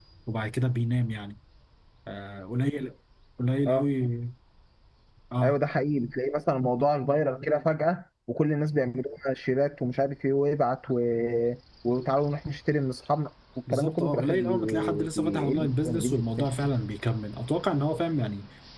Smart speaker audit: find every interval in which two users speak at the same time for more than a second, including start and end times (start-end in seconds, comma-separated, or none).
13.7-16.5